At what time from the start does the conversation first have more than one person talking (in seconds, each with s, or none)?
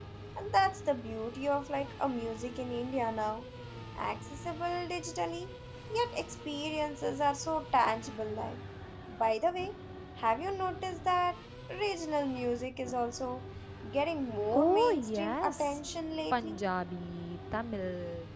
14.5 s